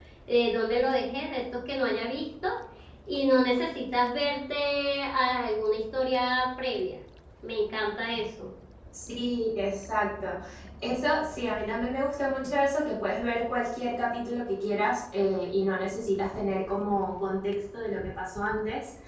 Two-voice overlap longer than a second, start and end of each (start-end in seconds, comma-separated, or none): none